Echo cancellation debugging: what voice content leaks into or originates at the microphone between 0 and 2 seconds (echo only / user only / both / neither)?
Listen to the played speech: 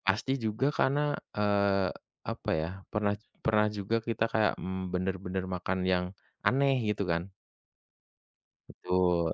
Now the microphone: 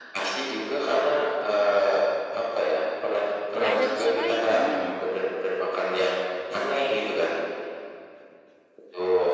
echo only